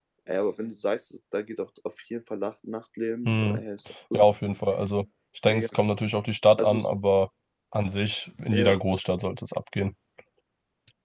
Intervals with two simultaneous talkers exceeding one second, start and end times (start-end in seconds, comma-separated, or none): none